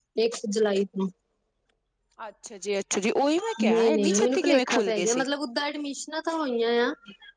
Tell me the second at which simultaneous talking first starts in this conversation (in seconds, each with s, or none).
3.7 s